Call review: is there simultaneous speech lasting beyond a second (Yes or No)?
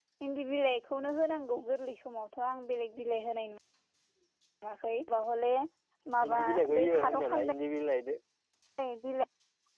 Yes